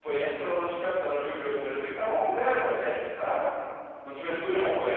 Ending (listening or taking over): taking over